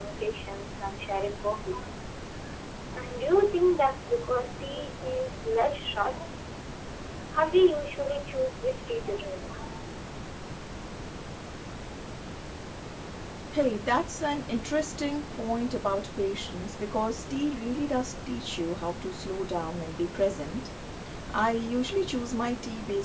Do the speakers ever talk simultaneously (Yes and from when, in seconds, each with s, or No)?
No